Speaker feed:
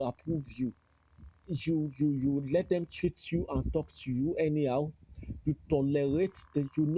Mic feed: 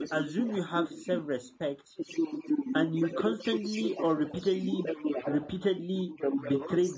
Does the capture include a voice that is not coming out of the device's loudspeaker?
Yes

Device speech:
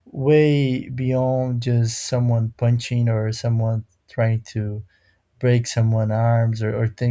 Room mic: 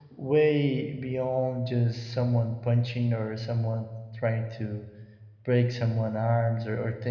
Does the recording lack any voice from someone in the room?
Yes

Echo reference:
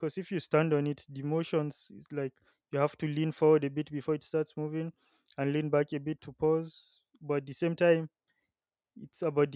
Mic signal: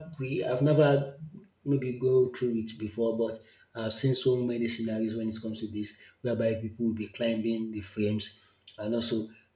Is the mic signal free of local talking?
No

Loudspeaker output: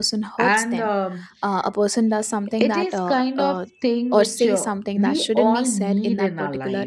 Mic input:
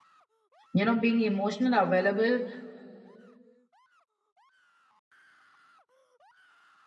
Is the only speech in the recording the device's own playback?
No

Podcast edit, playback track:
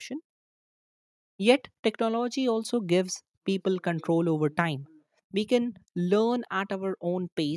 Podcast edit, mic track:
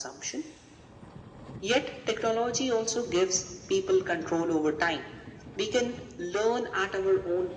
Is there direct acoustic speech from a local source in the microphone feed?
No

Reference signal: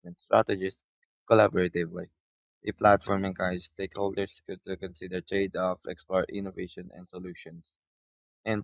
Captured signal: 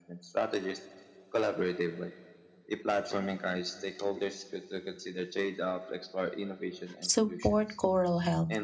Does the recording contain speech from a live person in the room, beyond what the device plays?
Yes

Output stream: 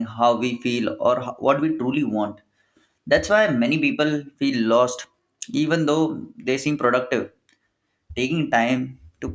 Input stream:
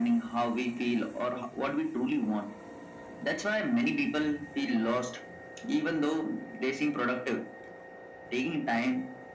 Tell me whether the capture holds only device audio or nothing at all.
Yes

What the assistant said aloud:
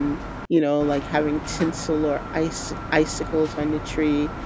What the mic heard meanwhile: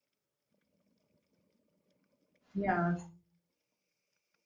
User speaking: Yes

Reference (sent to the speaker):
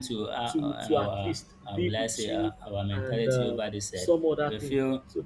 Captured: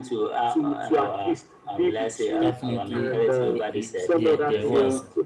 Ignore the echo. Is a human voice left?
Yes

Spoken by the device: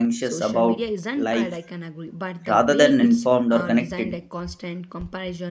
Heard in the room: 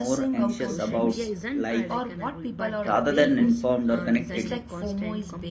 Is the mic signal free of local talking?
No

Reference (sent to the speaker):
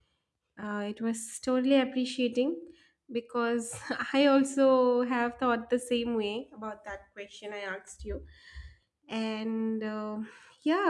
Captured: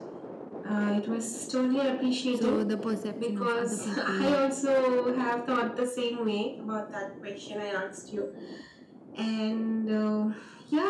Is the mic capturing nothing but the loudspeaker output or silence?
No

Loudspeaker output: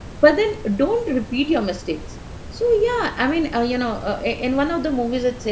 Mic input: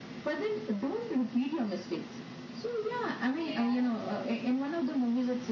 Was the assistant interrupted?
Yes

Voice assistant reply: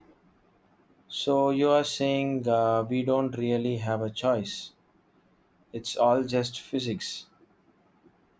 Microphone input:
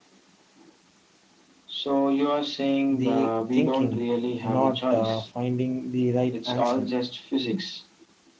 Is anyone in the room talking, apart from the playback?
Yes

